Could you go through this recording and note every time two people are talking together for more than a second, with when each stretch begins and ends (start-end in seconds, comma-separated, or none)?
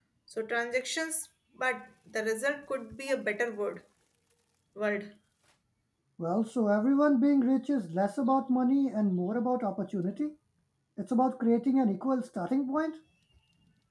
none